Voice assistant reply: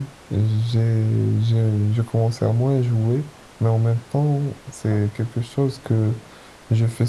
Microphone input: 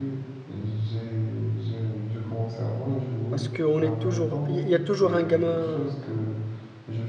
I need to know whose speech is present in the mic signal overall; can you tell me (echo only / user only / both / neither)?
both